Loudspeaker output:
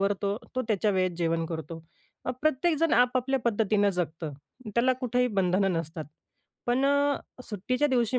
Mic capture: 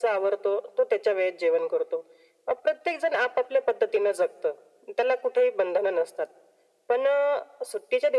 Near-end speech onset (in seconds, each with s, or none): none